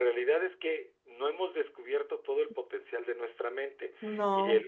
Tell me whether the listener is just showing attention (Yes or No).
Yes